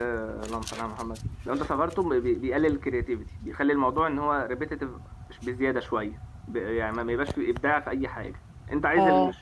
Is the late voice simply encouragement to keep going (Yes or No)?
Yes